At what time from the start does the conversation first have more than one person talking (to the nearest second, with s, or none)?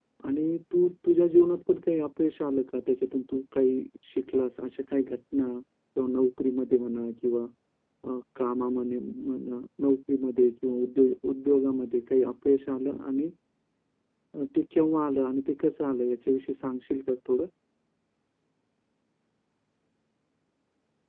none